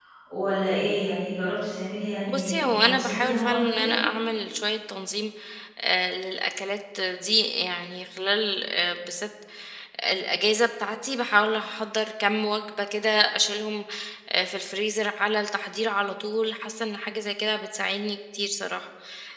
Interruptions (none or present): present